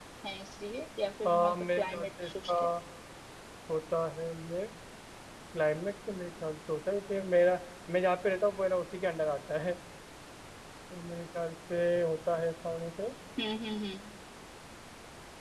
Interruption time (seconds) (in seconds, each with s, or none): 1.2 s